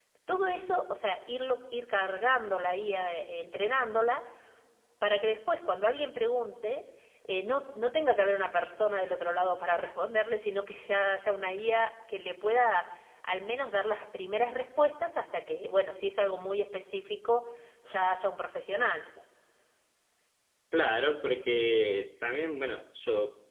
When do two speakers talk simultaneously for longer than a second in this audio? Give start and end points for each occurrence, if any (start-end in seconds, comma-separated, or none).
none